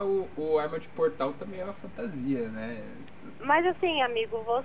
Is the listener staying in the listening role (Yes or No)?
No